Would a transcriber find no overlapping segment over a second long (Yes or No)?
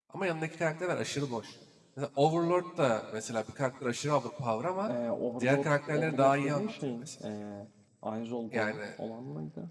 No